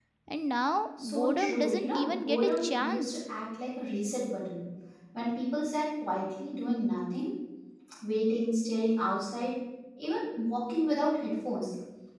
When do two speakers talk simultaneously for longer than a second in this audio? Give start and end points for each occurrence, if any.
1.0-3.2

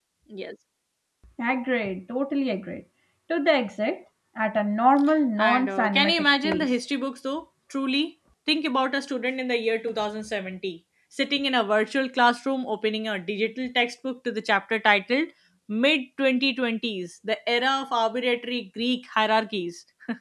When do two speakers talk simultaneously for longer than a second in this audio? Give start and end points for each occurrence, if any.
5.4-6.7

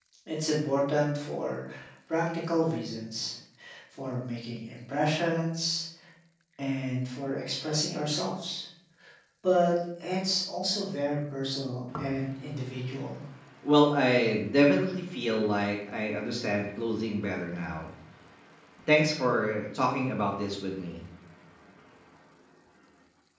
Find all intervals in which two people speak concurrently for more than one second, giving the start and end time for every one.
none

